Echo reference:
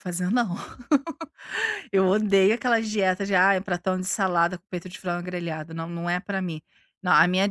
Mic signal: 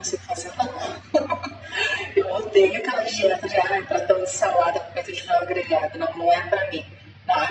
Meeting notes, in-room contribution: none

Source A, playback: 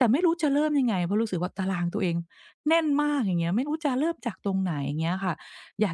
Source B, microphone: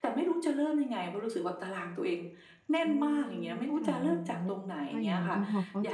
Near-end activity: present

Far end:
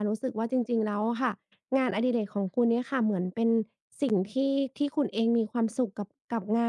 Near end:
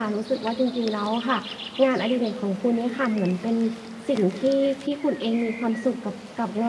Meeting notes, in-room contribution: none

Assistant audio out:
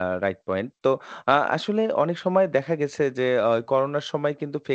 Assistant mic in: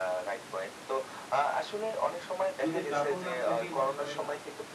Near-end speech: present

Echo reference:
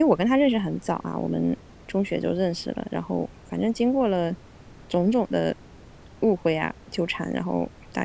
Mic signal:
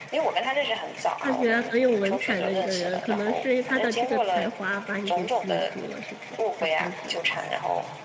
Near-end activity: present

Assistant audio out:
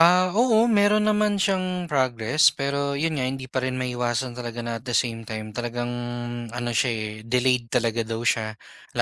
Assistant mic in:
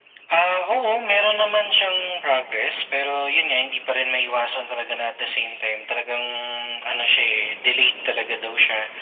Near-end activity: none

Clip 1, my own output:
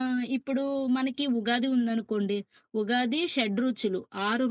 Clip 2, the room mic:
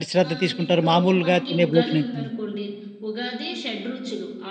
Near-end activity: present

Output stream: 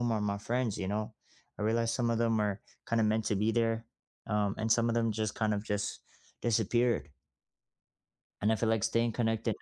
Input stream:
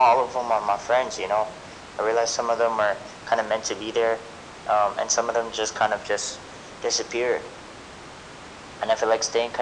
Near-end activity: none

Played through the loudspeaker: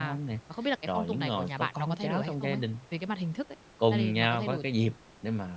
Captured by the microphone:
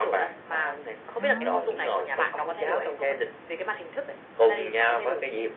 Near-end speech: present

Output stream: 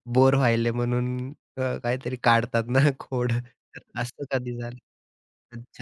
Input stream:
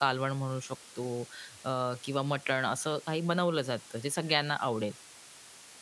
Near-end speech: present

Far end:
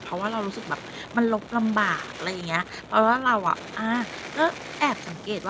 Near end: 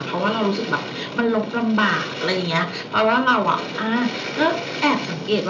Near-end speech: none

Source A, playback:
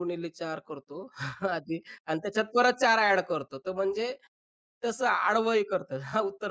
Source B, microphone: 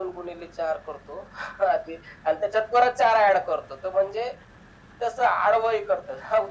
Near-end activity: none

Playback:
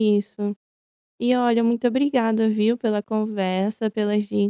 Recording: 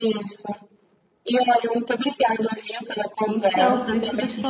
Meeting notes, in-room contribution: present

